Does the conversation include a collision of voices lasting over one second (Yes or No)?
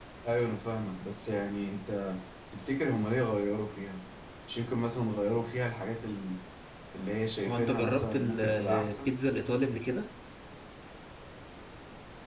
Yes